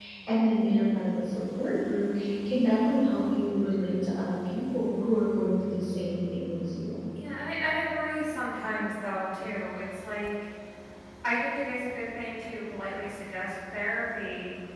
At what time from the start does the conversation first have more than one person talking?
none

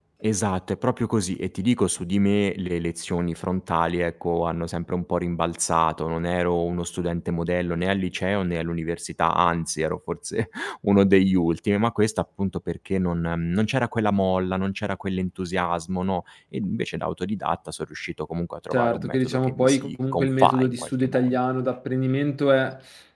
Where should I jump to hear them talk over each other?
18.7 s

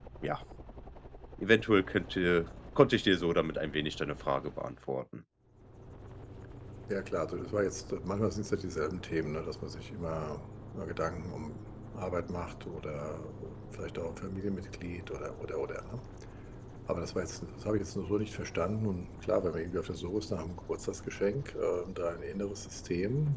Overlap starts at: none

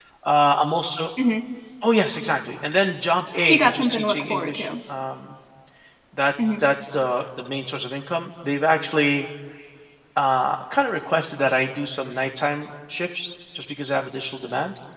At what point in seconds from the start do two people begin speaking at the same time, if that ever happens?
3.5 s

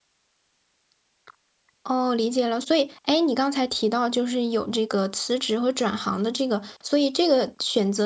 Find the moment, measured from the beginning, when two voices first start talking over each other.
none

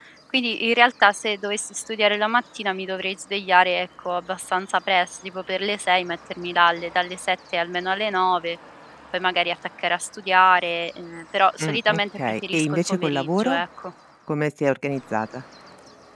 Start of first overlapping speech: 11.6 s

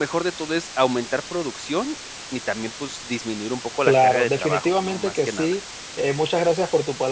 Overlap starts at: 3.9 s

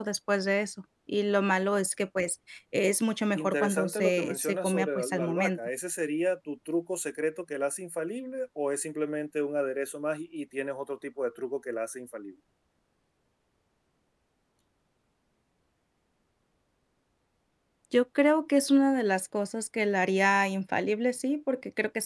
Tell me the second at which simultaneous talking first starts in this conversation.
3.4 s

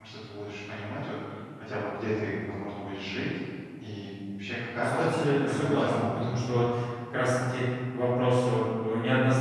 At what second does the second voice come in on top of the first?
4.8 s

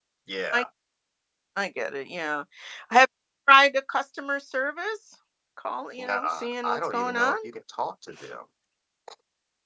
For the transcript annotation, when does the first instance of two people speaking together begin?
6.0 s

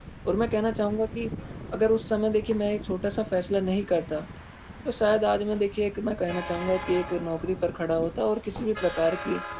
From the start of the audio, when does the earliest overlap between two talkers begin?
none

